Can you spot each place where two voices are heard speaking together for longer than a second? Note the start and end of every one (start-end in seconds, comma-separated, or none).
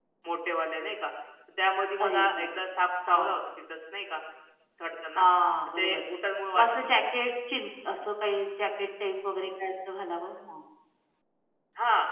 none